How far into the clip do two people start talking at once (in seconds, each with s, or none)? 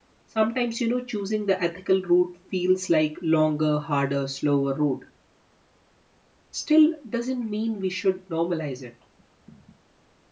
none